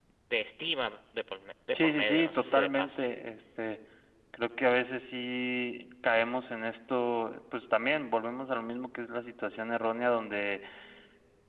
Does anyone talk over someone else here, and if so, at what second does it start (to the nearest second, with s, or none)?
2 s